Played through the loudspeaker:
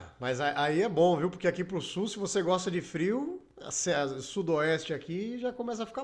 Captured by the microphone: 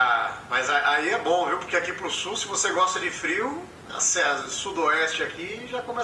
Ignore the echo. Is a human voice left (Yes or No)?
No